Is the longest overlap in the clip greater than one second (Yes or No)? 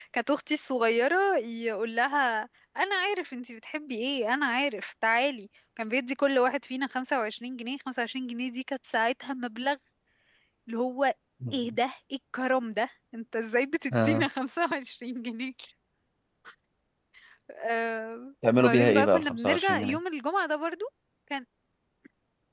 Yes